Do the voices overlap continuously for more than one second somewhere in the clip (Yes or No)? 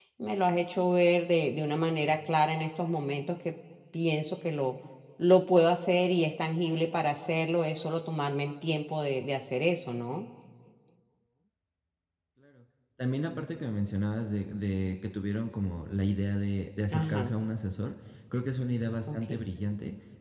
No